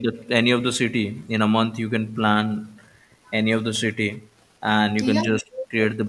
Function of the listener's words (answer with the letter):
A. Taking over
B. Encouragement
B